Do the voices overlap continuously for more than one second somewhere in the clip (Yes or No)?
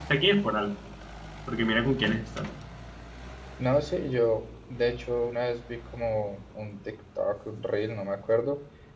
No